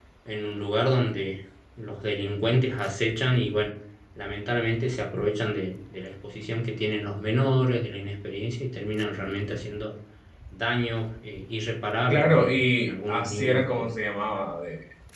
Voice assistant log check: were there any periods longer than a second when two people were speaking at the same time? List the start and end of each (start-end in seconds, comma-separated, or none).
12.1-13.9